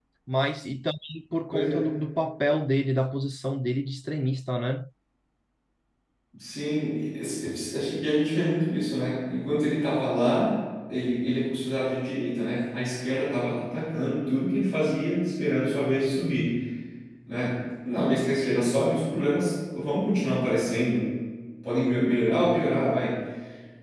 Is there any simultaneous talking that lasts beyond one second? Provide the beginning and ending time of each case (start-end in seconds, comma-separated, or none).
none